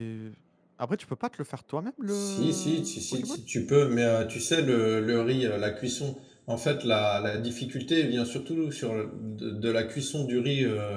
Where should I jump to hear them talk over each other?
2.1 s

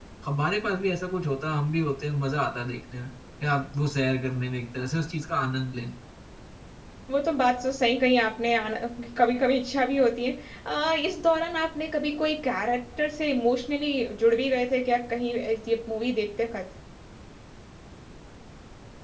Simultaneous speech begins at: none

